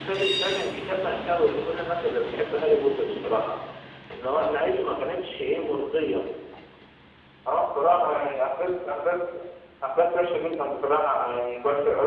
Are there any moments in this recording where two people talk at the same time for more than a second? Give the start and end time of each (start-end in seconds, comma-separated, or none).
none